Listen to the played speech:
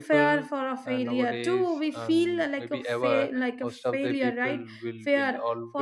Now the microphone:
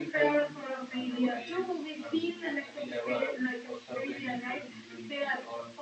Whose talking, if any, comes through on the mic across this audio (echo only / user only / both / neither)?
echo only